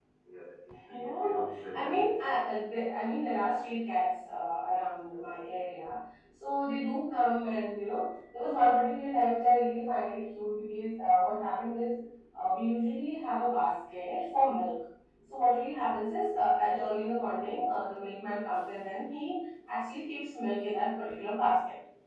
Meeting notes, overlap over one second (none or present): present